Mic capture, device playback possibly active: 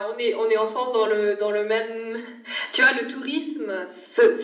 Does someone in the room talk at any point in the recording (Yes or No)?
No